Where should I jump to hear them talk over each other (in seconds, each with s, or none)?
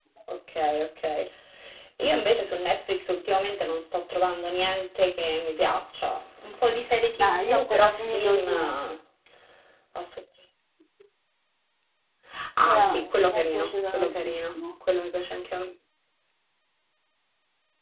7.2 s